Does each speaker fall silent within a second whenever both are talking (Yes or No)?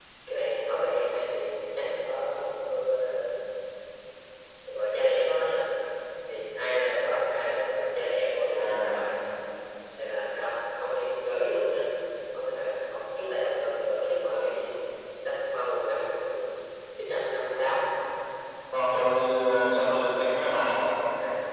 Yes